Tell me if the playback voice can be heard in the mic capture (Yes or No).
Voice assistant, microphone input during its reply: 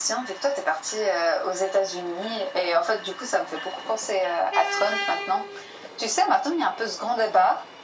Yes